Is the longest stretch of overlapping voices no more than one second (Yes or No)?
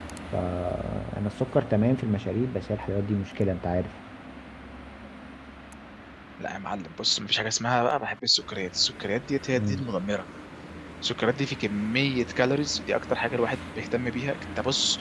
Yes